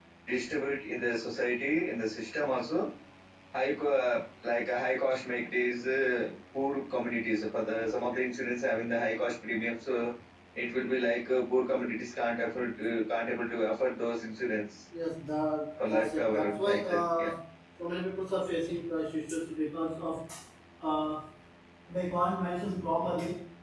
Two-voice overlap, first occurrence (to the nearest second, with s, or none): 16 s